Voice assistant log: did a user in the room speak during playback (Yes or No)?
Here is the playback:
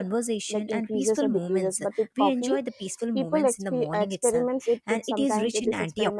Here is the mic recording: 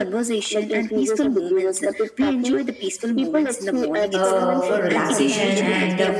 Yes